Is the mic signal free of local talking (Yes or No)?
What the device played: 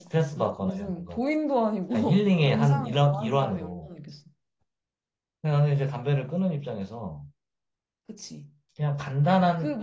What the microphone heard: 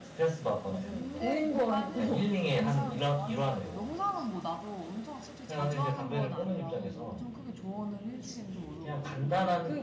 No